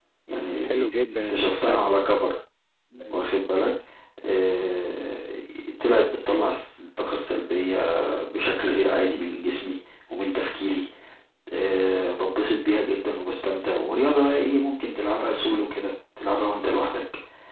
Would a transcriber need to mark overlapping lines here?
Yes, from 0.6 s

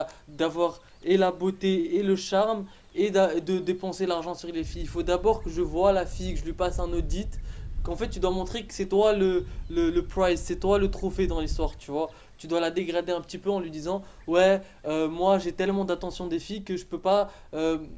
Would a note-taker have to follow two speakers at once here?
No

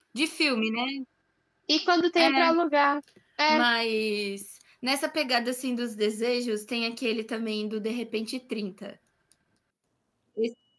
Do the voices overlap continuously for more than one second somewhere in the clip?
No

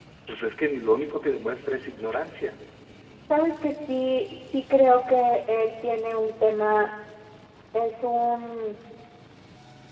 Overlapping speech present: No

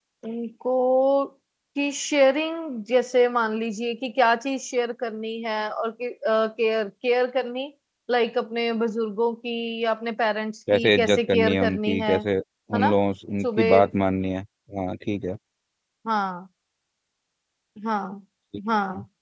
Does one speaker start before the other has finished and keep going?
Yes, from 10.7 s

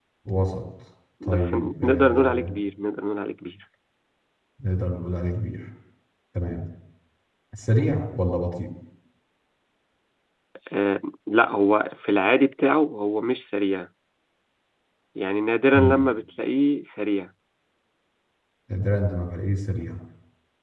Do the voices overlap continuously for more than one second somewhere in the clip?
Yes, from 1.2 s

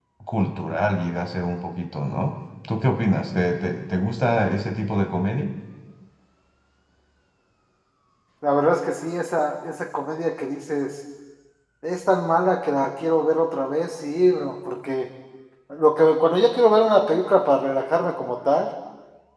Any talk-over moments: No

